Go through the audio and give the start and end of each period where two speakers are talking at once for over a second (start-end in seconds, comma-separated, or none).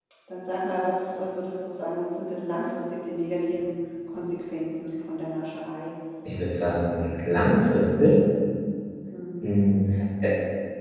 none